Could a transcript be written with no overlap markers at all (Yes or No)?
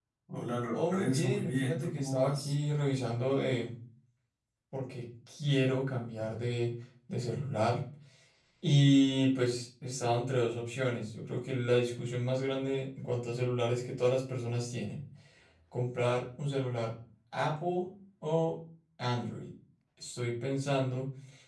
No